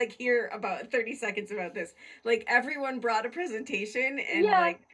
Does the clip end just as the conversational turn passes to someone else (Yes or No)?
Yes